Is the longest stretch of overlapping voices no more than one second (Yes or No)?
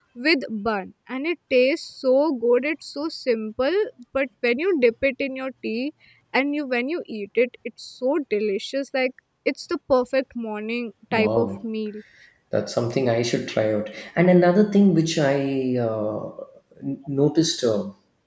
Yes